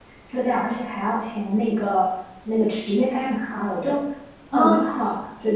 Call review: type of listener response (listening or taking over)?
listening